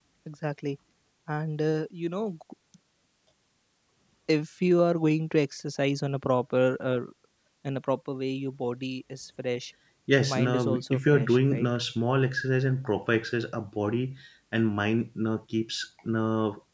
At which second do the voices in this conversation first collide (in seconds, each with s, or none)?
10.2 s